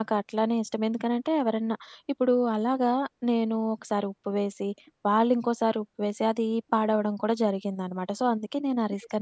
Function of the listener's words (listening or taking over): taking over